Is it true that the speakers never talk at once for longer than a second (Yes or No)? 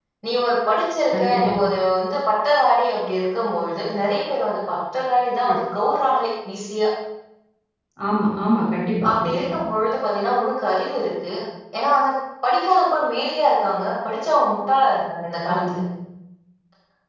Yes